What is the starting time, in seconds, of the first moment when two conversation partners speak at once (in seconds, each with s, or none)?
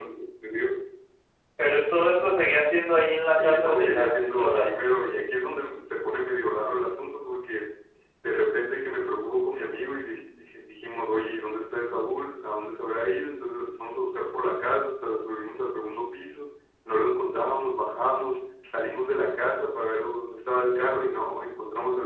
3.4 s